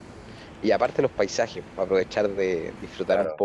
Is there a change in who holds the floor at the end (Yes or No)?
No